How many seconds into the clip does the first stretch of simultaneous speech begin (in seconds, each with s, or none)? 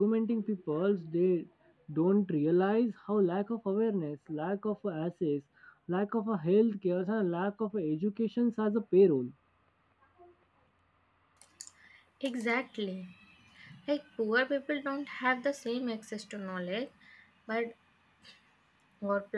none